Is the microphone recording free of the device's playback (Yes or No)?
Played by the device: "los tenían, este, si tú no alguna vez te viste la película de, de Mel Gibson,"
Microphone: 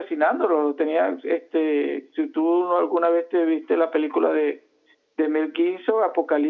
No